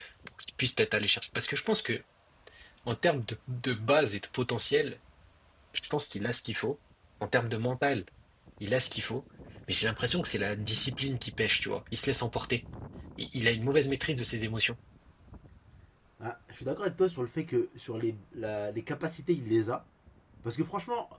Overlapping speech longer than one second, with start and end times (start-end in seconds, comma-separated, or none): none